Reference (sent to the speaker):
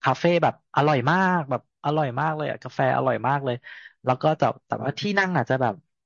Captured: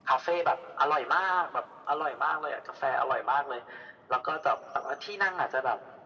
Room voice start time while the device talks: none

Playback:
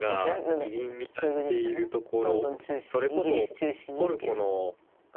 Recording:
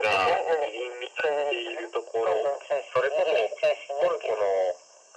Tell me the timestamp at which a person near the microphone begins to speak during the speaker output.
none

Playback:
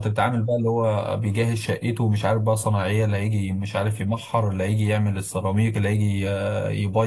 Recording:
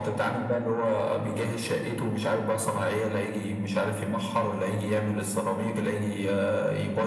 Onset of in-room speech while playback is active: none

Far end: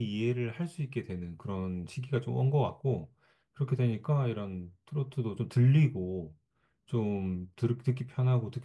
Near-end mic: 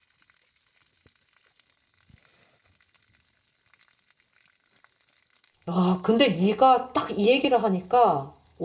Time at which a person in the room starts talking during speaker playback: 6 s

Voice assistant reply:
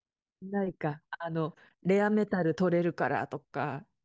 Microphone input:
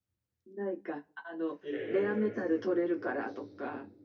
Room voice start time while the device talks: 2 s

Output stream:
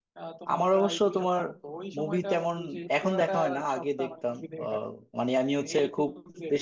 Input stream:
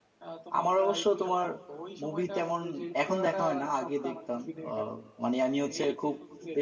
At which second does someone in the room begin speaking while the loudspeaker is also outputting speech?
none

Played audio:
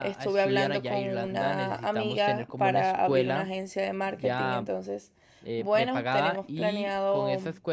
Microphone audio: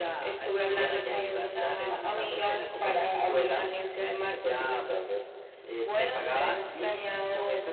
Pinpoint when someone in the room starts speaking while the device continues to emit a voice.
none

